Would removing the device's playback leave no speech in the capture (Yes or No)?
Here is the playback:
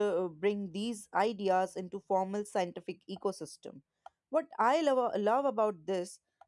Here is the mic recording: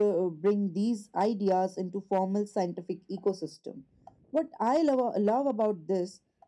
Yes